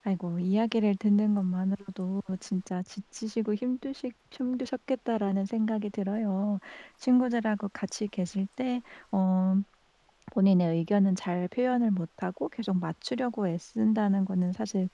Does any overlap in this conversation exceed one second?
No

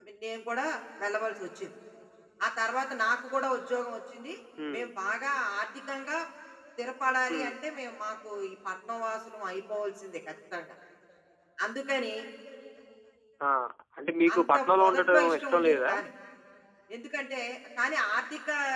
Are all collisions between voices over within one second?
No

